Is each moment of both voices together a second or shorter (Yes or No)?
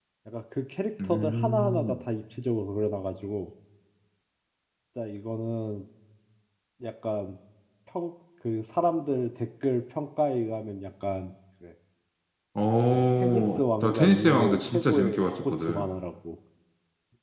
No